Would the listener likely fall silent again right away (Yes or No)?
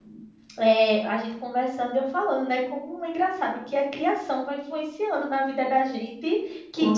Yes